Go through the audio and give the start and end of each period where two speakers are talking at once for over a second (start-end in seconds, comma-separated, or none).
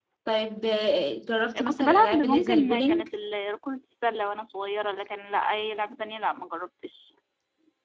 1.6-3.1